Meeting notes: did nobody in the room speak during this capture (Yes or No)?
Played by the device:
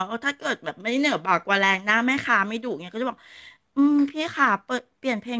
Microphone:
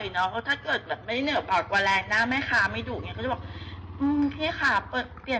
Yes